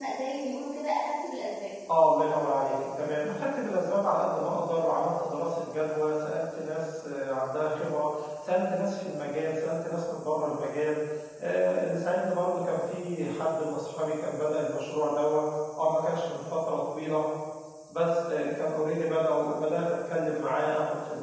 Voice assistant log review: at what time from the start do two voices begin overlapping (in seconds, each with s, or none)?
none